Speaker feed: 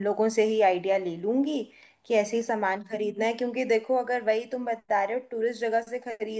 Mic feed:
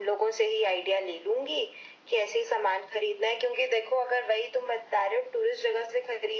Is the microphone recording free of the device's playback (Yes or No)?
No